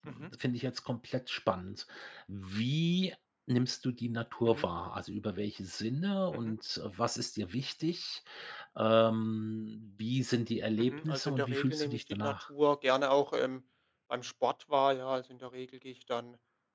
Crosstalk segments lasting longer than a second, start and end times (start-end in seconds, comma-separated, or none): 10.8-12.4